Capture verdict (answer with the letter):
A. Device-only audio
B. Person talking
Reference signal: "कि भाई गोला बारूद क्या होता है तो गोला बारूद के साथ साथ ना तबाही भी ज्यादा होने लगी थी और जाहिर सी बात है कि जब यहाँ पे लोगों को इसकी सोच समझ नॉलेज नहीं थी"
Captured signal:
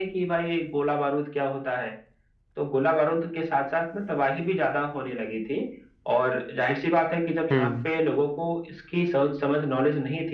B